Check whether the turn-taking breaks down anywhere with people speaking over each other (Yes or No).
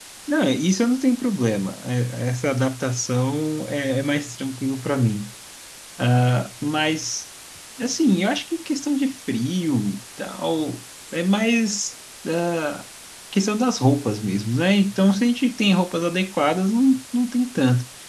No